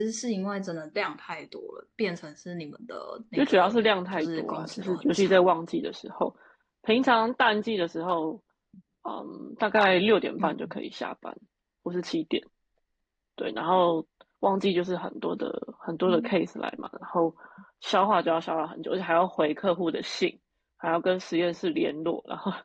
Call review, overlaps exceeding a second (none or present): present